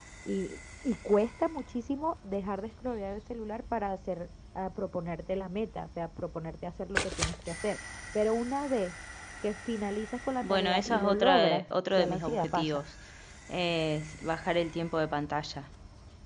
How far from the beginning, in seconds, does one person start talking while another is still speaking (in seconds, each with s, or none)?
10.4 s